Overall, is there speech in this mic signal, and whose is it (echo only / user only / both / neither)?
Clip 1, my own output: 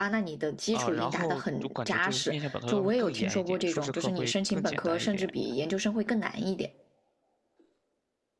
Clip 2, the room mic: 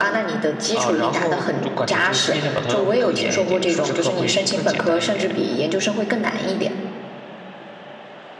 echo only